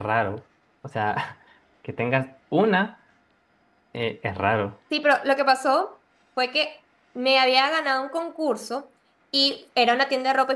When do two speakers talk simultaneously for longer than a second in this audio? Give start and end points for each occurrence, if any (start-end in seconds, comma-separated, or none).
none